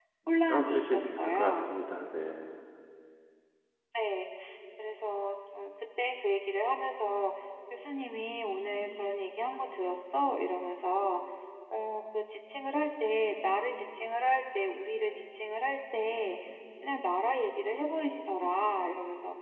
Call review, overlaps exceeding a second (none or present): present